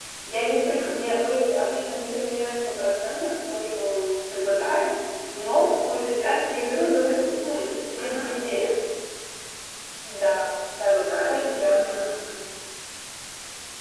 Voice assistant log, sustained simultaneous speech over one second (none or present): present